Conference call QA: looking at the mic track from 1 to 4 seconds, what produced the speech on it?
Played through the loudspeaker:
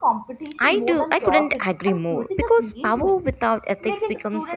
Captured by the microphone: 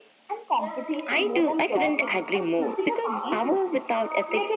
both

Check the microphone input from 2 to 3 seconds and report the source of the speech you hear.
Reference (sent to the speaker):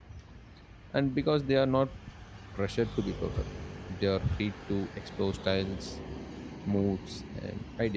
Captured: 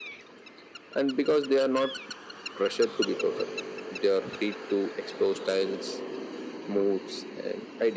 echo only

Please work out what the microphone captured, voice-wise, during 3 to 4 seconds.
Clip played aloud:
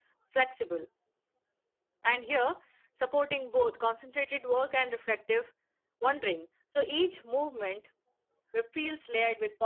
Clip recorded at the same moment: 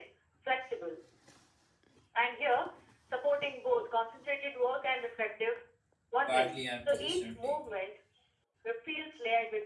echo only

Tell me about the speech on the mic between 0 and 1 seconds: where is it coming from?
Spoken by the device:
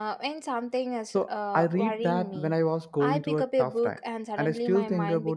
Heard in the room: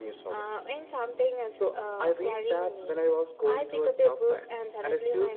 echo only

